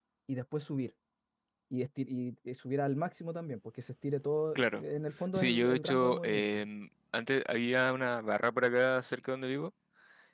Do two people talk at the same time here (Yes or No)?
Yes